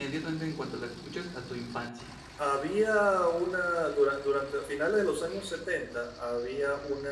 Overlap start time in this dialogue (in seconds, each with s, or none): none